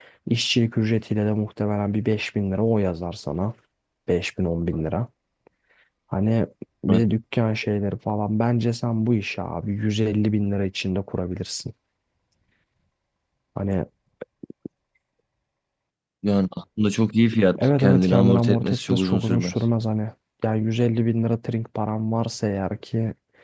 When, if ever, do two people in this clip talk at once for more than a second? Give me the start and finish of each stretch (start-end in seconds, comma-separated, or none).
17.6-19.5